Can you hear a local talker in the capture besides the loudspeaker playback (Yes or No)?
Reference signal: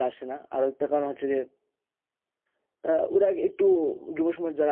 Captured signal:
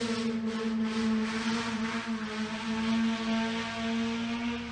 No